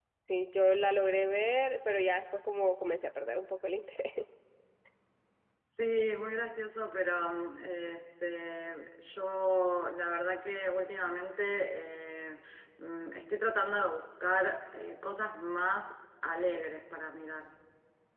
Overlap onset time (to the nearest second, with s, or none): none